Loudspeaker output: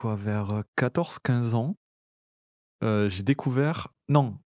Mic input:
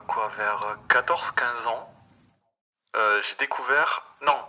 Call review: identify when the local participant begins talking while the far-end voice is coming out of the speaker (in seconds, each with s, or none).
none